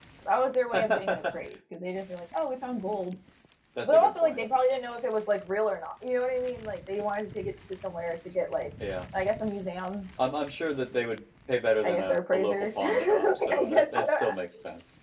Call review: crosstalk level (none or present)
present